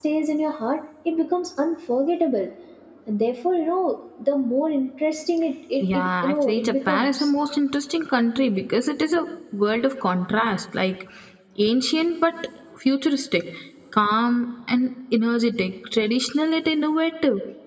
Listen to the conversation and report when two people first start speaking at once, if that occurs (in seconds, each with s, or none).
5.8 s